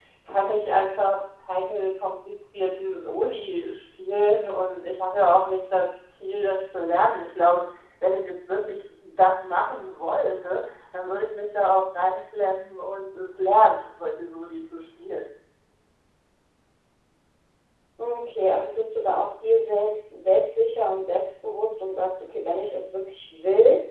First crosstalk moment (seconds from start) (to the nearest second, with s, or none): none